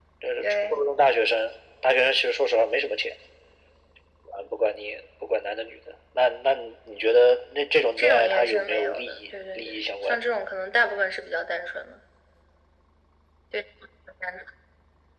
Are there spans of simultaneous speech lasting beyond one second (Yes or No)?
Yes